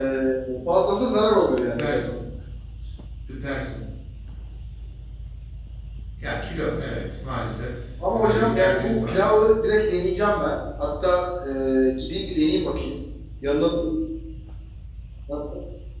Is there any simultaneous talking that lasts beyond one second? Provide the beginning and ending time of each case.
8.1-9.4

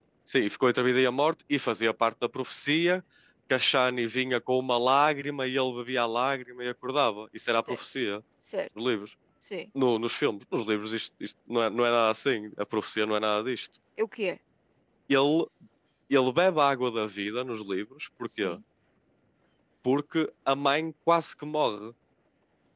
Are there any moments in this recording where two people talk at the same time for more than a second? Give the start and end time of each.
none

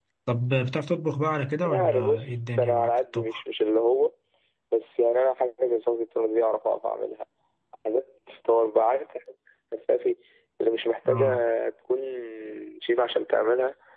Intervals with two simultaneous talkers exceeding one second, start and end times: 1.6-3.4

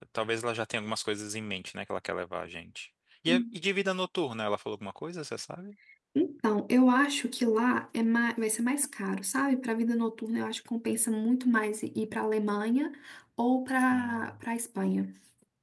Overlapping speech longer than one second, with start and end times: none

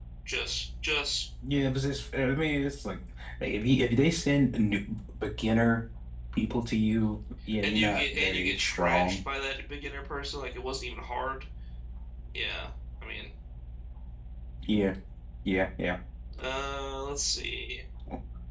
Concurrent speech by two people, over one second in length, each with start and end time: 7.6-9.2

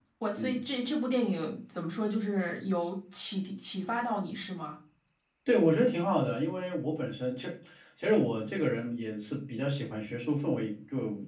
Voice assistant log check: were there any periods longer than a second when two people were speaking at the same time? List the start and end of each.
none

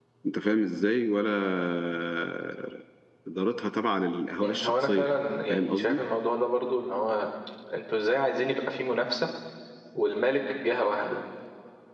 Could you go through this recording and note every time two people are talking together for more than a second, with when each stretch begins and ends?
4.4-6.0

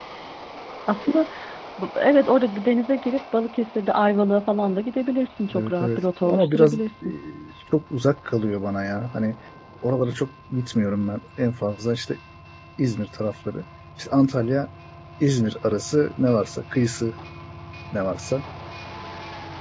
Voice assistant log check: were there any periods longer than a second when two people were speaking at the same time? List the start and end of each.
5.5-6.8

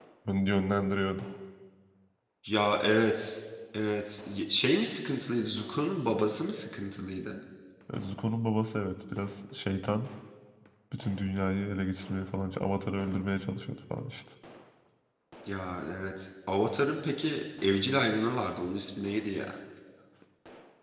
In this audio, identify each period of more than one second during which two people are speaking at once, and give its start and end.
none

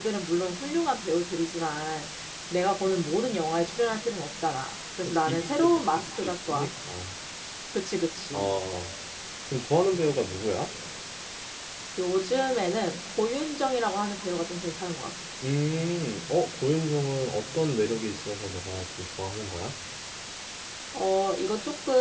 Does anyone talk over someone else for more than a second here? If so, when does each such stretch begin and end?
5.0-6.7

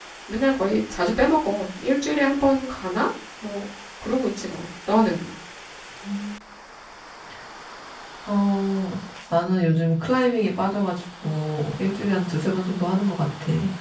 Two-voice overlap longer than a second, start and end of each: none

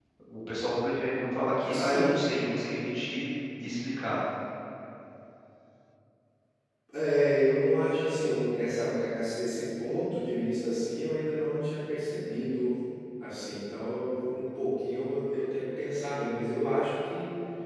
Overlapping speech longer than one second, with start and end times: none

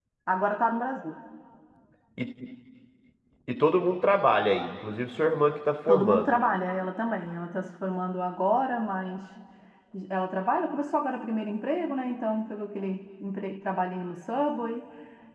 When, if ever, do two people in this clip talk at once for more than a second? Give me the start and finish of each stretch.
none

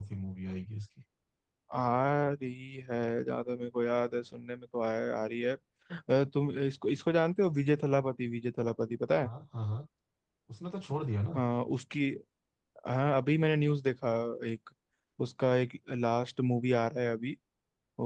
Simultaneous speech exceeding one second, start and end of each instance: none

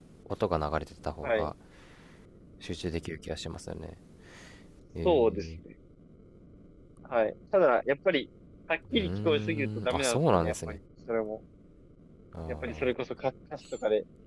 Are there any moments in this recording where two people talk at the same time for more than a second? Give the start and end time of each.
8.9-10.8

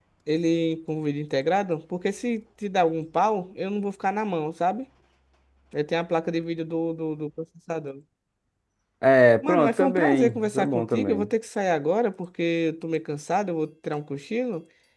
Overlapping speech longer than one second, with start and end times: 9.4-11.3

